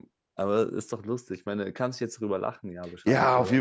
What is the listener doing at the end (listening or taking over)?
taking over